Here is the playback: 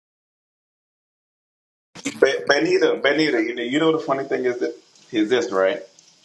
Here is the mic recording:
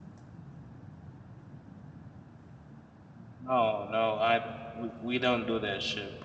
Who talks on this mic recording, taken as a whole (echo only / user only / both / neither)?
user only